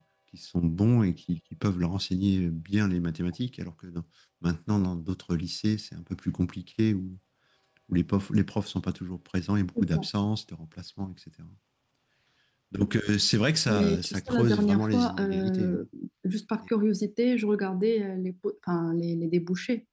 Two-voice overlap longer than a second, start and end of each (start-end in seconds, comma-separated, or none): 13.7-15.8